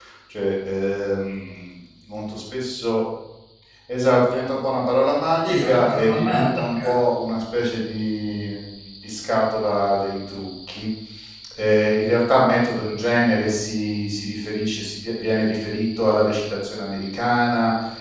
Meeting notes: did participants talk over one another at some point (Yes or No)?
Yes